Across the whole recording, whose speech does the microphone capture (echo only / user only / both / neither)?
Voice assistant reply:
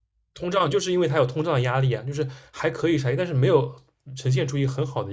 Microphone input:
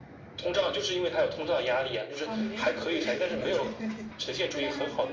both